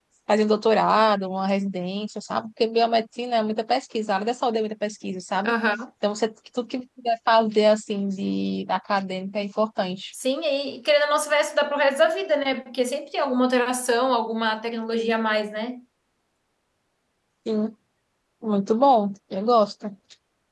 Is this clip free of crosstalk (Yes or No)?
Yes